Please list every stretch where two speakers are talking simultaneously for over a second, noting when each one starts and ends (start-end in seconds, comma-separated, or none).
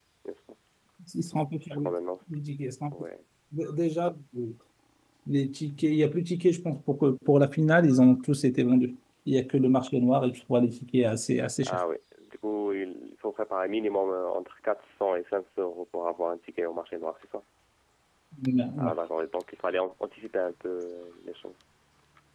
none